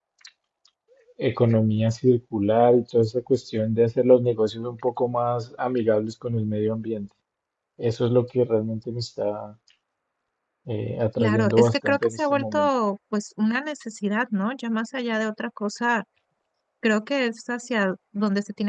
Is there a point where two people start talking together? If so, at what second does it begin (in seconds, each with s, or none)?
11.2 s